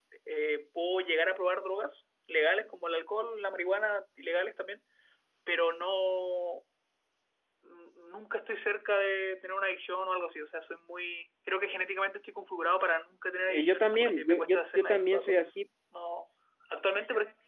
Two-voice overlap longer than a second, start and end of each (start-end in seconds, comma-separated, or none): 13.5-15.6